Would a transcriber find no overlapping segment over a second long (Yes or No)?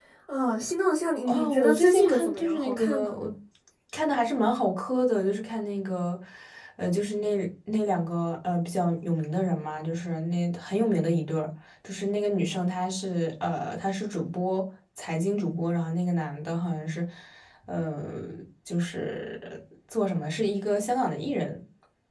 No